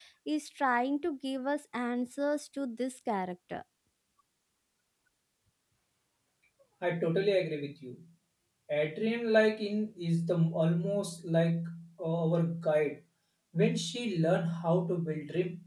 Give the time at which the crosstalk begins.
none

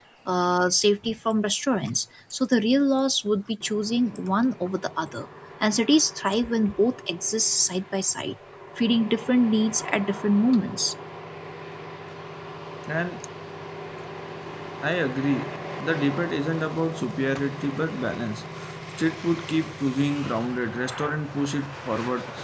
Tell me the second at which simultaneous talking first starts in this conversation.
none

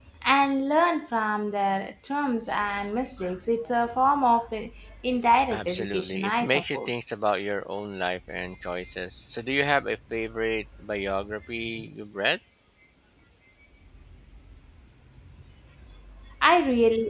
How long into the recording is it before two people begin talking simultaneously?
6 s

